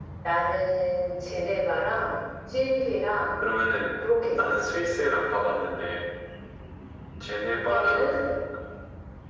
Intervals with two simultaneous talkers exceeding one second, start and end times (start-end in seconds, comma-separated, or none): none